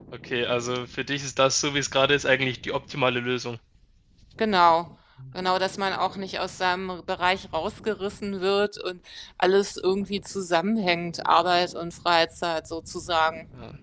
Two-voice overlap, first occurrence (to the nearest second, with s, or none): none